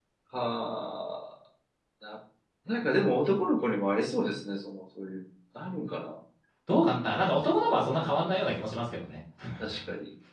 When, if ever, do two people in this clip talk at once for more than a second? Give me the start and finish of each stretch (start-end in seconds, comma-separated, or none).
none